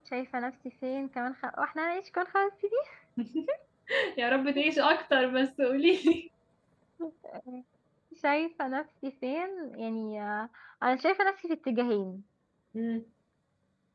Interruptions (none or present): none